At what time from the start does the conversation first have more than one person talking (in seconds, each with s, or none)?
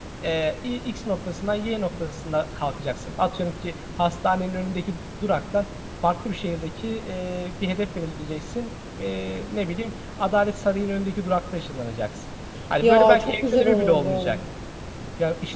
12.8 s